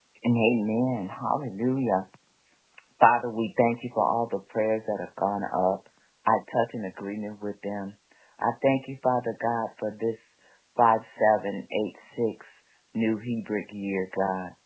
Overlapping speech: No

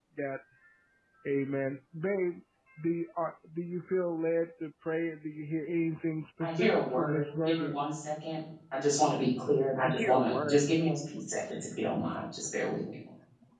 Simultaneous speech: Yes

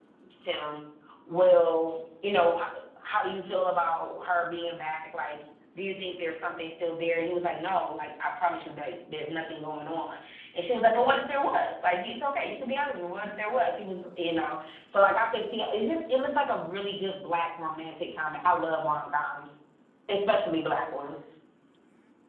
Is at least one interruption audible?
No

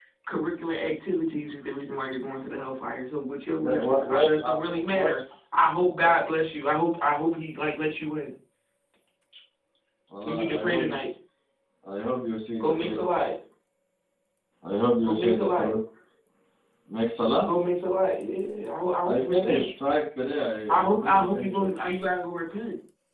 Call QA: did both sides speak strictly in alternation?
No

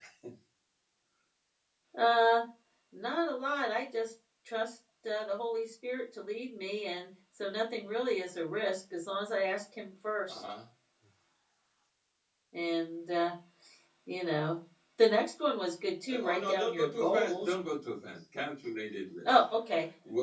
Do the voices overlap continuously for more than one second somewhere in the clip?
Yes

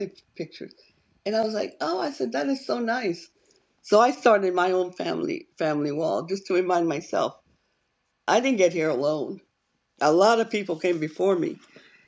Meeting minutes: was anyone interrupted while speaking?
No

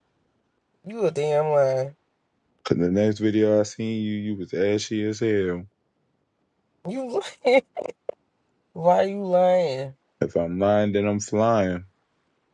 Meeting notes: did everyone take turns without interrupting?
Yes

